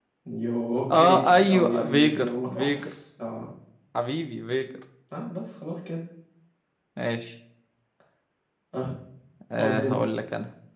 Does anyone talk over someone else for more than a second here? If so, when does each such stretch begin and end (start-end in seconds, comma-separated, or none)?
0.9-2.9